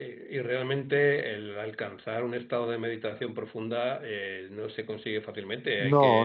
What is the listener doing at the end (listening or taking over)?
listening